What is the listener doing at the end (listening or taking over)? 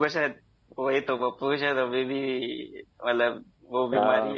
taking over